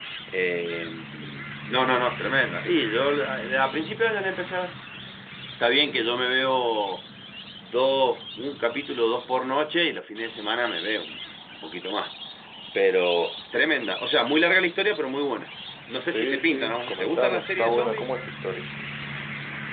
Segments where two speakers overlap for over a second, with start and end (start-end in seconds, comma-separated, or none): 16.1-18.1